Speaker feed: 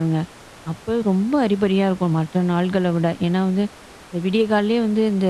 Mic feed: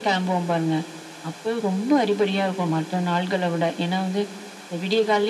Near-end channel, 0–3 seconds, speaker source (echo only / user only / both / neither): echo only